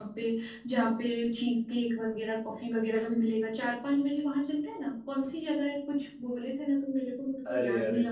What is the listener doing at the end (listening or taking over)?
taking over